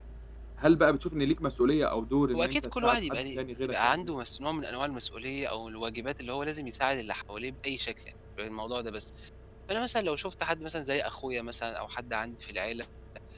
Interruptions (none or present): present